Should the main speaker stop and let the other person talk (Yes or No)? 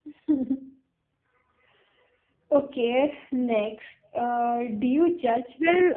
Yes